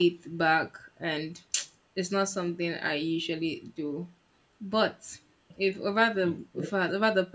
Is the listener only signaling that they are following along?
Yes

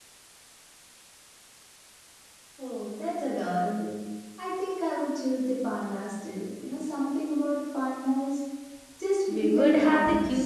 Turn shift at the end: Yes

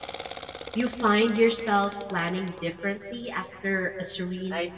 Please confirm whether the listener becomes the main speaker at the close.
Yes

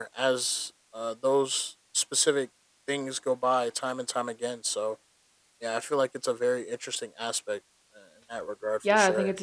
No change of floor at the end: No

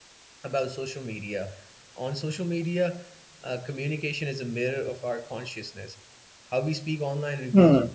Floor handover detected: No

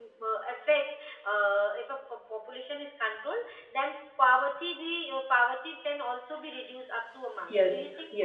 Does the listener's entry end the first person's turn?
Yes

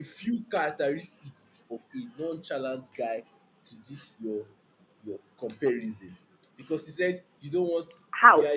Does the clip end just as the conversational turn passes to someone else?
No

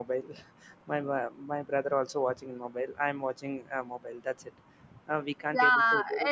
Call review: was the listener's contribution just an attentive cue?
No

